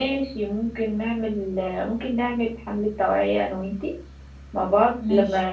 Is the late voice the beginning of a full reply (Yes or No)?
No